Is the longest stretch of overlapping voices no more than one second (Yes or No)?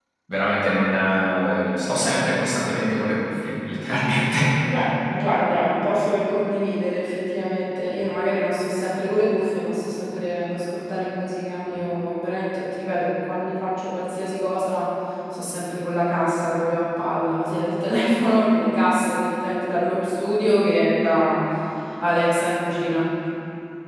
Yes